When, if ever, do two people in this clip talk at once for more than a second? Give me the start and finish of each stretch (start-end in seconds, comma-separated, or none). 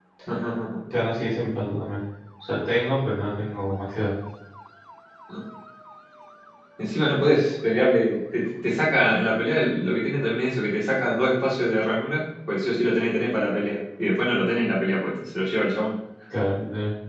none